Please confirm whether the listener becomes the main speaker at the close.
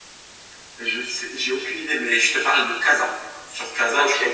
No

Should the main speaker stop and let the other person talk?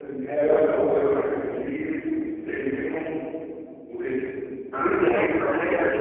Yes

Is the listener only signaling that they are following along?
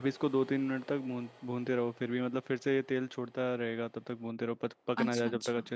No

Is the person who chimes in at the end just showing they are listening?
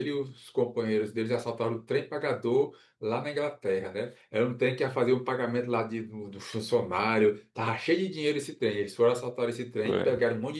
Yes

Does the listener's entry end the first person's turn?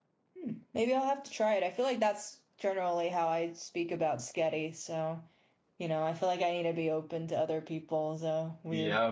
Yes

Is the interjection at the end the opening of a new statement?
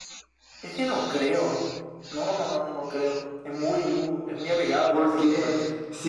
Yes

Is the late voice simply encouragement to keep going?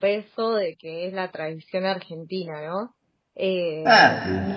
Yes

